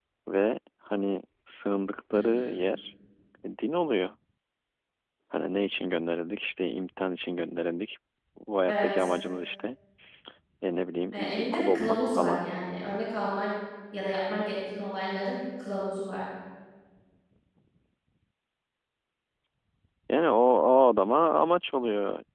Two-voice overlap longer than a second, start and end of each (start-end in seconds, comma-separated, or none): 11.1-12.4